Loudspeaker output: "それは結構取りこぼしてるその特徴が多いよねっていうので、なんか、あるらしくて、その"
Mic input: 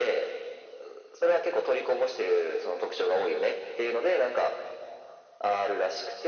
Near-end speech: none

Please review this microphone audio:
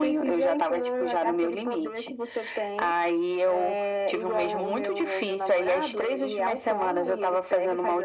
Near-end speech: none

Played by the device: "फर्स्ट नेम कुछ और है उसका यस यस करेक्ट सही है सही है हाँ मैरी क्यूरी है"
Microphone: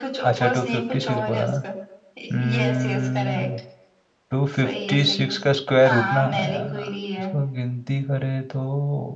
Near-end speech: present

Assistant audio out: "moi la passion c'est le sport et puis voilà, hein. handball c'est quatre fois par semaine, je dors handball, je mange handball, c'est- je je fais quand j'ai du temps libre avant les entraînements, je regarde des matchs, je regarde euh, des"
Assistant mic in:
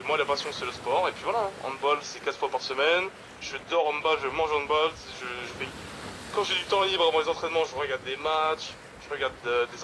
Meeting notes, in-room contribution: none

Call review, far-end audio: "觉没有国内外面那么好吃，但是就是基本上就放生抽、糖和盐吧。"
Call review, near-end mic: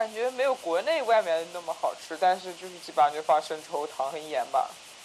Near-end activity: none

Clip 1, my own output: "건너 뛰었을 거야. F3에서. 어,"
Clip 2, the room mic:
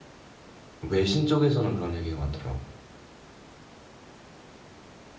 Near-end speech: present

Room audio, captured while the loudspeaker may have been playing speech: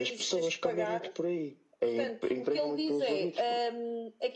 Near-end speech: none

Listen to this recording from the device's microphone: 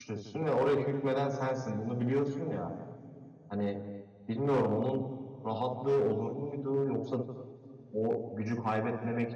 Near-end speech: present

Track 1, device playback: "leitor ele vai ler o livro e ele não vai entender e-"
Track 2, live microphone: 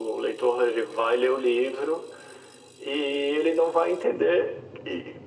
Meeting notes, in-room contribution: none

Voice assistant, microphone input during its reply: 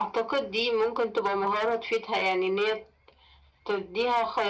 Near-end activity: none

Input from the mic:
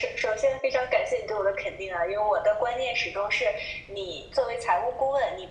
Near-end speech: none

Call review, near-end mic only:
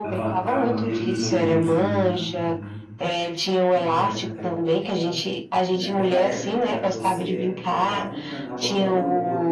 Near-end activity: present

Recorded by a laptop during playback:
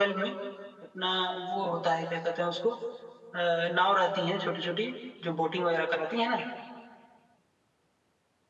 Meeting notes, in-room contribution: none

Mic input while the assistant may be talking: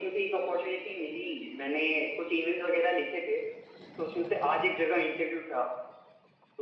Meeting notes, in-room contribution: none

